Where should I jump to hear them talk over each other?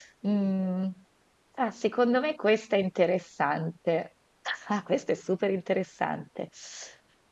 none

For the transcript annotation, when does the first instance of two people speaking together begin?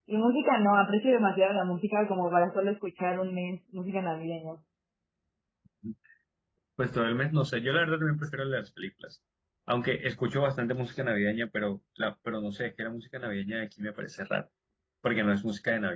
none

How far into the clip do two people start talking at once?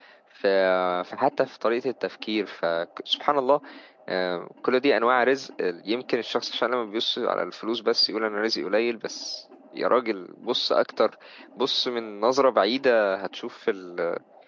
none

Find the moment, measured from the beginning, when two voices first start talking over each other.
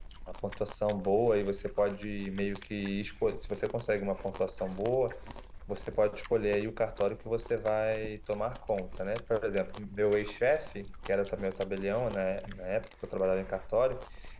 none

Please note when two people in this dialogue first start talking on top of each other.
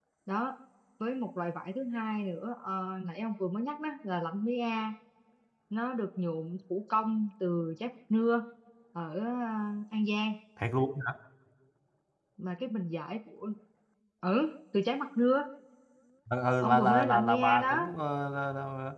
16.6 s

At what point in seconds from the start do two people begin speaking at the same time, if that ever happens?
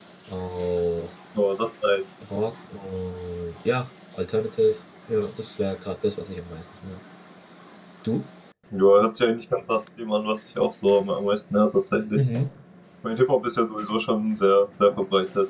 none

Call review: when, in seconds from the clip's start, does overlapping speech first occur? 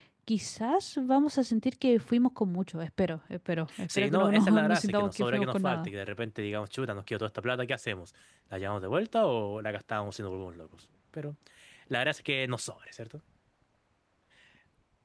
3.7 s

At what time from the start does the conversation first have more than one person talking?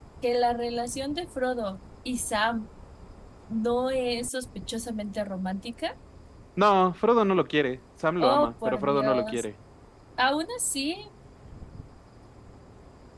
8.2 s

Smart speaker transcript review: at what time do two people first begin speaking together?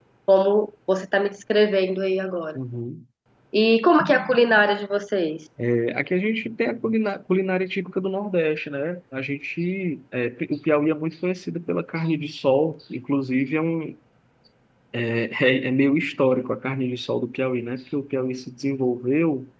none

